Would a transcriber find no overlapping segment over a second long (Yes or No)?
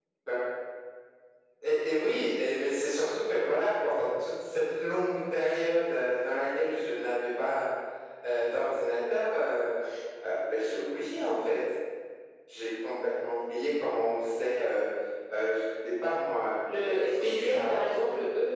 No